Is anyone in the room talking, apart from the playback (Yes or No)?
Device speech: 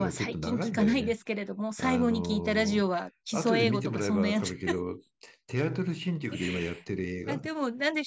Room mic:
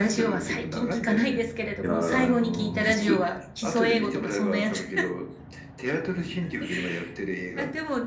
Yes